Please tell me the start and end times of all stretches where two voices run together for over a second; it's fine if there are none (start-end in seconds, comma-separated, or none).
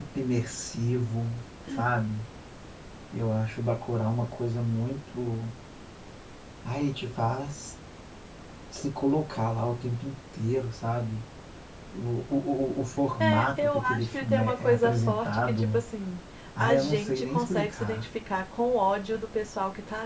13.2-15.8, 16.6-18.0